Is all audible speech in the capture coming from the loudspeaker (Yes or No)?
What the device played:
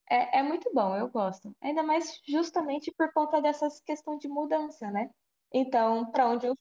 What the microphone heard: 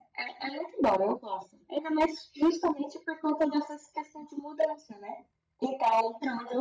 Yes